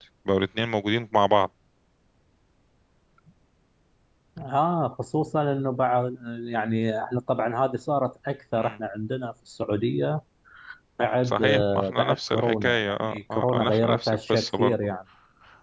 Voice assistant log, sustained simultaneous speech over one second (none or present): present